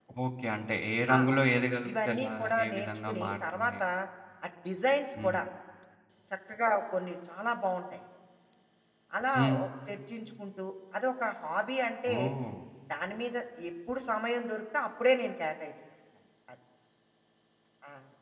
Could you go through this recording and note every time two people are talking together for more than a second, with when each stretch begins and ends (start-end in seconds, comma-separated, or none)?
2.0-3.8